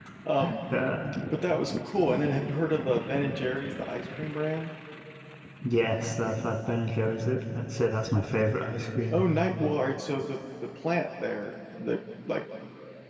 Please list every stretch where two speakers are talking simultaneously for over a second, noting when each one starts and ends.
none

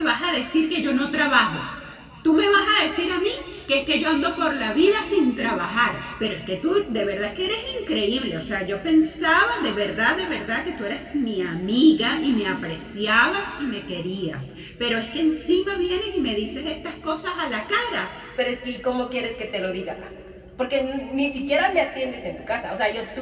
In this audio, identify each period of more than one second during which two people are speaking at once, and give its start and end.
none

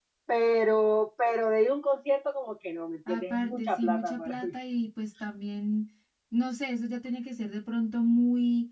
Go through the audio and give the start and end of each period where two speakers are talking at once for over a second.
3.1-4.5

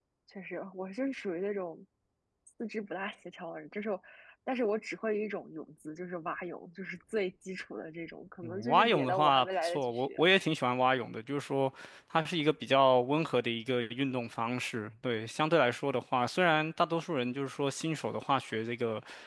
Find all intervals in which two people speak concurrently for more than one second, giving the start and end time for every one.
8.4-10.2

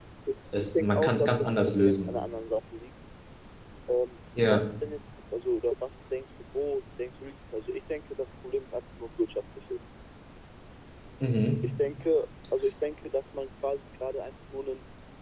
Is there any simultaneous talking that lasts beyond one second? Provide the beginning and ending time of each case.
0.7-2.1

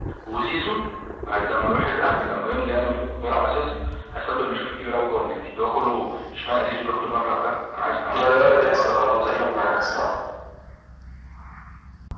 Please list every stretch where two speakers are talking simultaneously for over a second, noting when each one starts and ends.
8.2-10.1

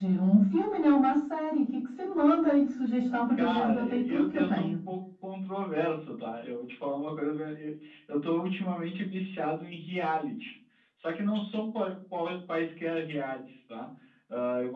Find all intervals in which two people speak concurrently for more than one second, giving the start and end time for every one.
3.3-4.7

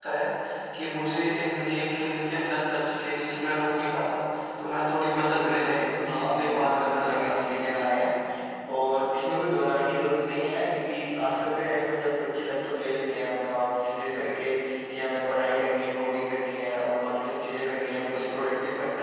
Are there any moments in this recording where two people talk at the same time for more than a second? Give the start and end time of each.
5.1-7.4

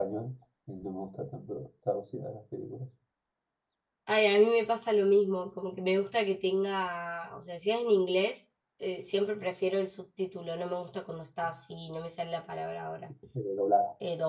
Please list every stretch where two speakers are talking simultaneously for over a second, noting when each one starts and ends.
none

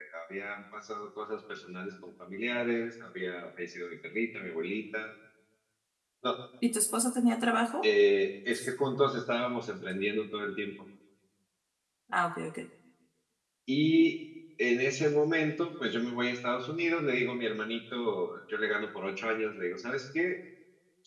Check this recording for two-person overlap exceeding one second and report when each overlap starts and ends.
none

